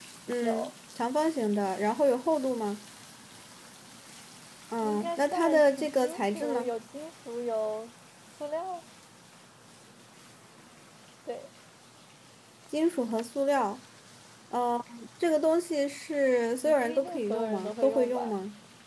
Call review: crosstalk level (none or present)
present